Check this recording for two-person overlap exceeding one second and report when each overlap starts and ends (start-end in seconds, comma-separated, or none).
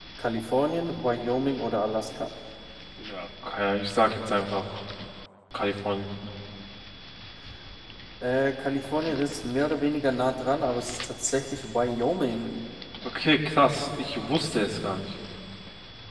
none